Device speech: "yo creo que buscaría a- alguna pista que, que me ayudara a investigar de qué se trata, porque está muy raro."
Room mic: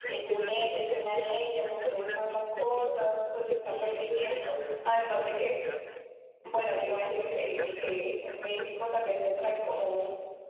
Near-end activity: present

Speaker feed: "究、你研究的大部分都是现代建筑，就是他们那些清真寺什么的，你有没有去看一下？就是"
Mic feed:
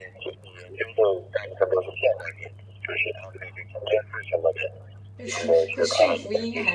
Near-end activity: present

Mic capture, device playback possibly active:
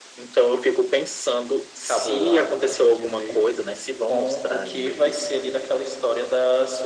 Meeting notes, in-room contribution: present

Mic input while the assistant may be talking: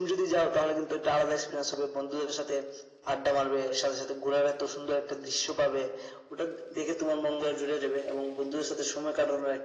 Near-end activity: none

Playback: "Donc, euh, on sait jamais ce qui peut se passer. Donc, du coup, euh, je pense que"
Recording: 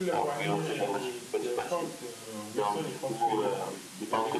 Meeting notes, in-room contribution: present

